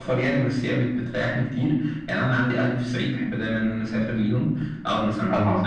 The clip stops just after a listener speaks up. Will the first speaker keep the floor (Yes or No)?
Yes